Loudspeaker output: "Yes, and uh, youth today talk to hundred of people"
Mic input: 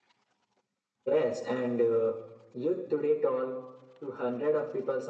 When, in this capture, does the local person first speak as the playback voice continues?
none

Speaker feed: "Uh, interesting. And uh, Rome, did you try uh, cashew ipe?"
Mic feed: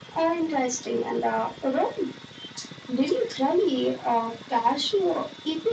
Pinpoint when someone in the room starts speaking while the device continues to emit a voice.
none

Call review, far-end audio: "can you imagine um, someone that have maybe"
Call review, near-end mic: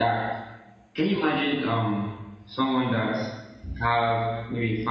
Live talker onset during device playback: none

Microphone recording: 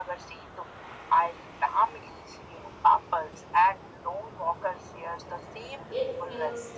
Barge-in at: 5.9 s

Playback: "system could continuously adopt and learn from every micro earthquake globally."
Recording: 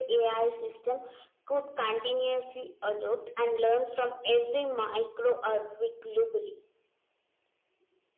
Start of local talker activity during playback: none

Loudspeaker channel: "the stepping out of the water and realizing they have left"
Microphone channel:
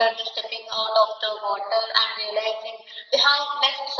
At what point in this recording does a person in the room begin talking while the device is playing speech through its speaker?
none

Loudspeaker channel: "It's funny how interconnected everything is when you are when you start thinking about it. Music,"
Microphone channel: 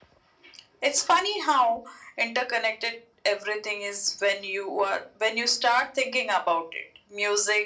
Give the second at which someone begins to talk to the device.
none

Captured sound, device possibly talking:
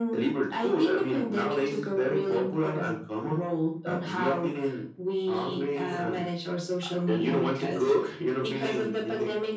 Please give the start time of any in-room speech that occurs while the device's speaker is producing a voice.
none

